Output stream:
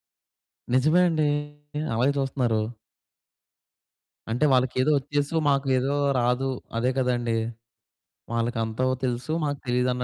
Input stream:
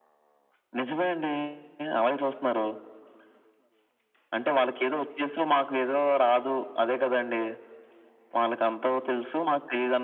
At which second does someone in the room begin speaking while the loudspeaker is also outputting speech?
none

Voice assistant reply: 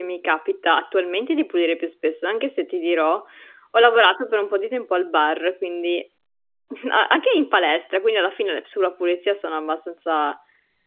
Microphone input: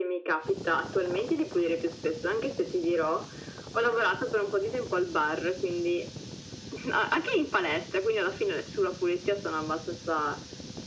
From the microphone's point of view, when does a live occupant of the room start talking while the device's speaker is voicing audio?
none

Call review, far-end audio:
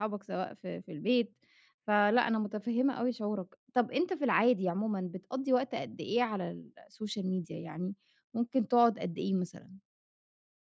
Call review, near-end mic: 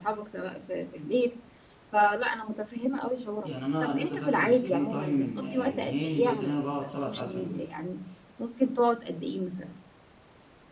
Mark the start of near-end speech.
3.4 s

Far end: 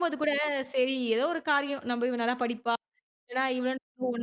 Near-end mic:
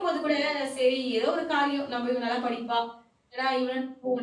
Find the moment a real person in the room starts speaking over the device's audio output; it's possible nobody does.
none

